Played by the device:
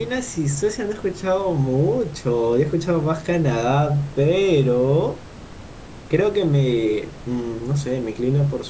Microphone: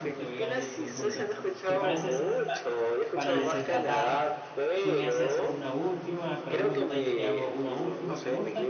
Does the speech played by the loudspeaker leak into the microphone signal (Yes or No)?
Yes